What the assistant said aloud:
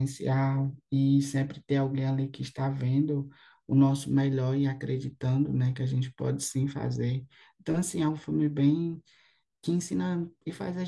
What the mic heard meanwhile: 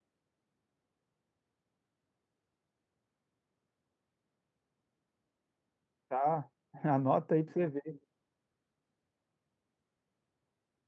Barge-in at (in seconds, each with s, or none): 6.1 s